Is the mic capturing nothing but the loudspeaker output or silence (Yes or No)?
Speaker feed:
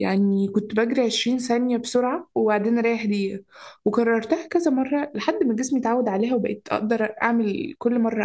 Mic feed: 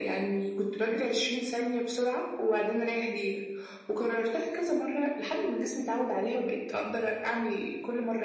Yes